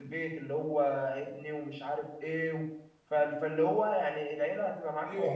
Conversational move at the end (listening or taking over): taking over